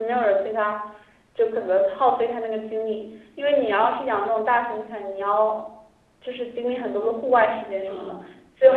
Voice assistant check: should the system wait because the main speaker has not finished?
No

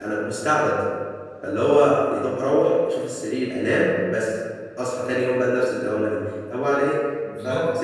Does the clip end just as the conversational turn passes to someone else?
No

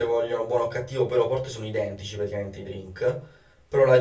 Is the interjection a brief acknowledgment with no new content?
Yes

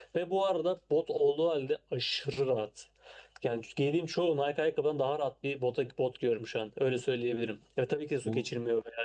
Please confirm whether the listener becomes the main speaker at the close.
No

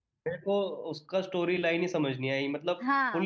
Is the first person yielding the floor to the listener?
Yes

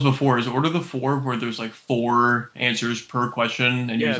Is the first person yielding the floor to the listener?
Yes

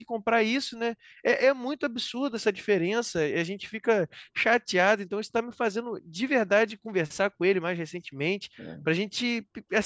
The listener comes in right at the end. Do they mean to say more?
No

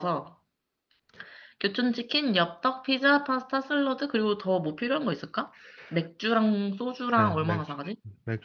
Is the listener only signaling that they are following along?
No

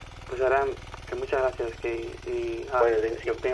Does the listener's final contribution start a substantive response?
Yes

